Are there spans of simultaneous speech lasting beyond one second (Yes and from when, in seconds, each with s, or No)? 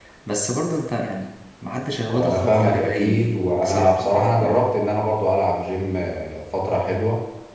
Yes, from 2.1 s